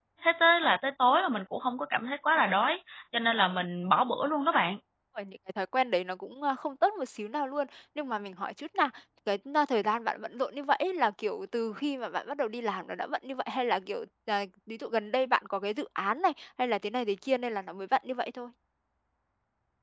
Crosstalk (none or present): none